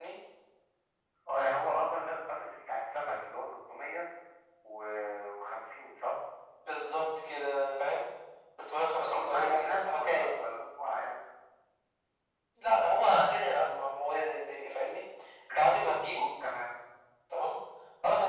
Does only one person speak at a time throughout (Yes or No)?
No